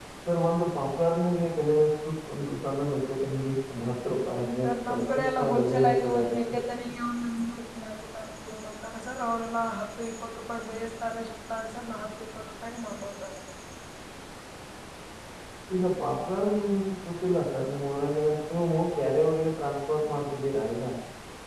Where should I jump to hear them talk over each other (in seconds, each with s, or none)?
4.6 s